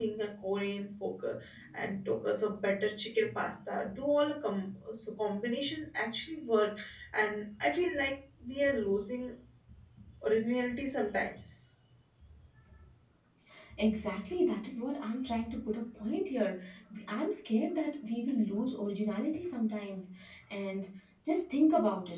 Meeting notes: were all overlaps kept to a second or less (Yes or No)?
Yes